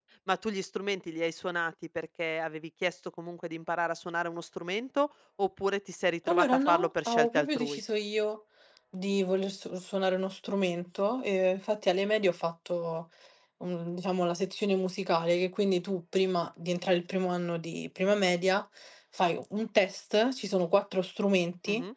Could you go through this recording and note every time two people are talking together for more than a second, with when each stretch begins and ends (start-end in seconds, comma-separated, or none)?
6.3-7.8